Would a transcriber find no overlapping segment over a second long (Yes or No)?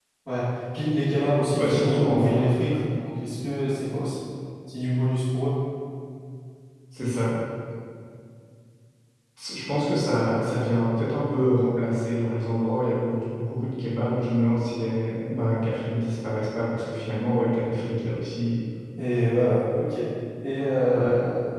No